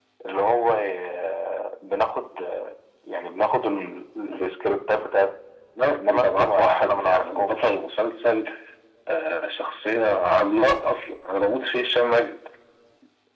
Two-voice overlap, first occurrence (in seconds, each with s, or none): 6.0 s